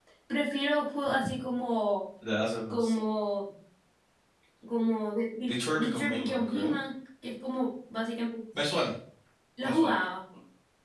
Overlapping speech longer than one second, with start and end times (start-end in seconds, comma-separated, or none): 5.5-6.7